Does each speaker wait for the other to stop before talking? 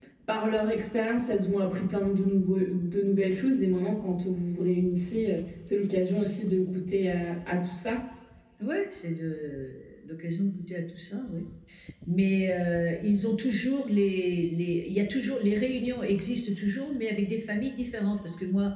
Yes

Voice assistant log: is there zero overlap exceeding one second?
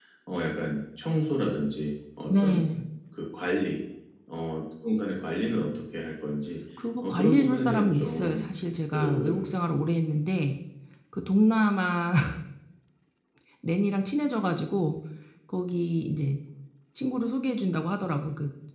No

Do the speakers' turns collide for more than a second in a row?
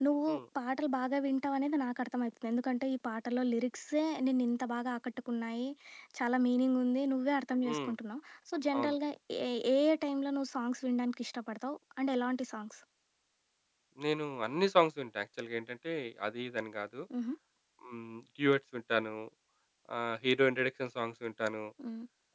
No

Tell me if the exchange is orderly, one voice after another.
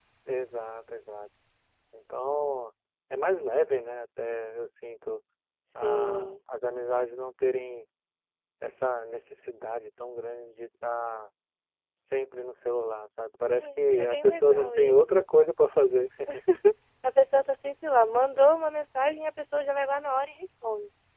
No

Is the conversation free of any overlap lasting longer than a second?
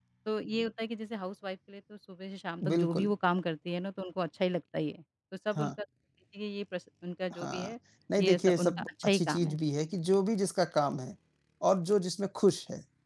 No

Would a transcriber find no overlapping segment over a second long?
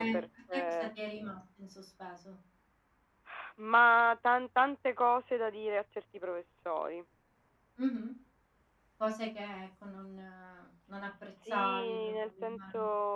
No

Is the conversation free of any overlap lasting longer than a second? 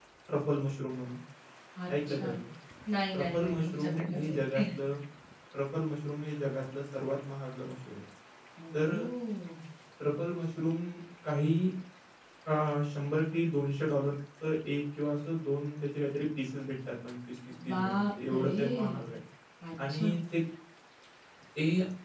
No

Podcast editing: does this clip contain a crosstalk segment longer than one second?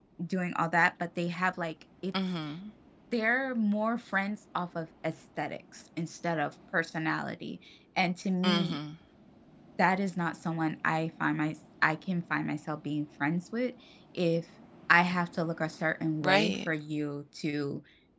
No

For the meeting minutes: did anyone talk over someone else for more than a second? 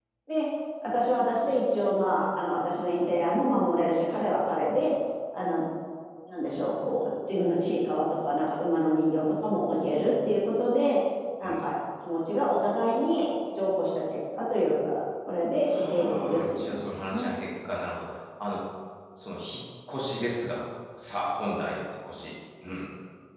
Yes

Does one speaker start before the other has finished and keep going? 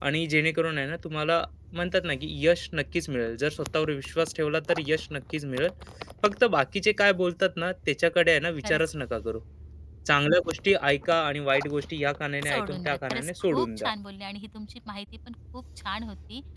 Yes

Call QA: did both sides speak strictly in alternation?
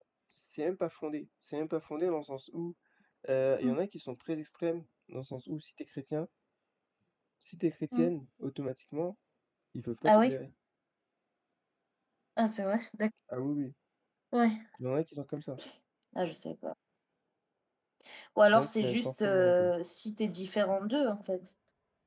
No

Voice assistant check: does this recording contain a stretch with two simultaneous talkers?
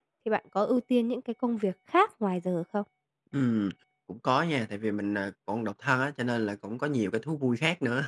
No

